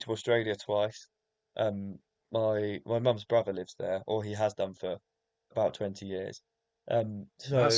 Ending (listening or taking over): taking over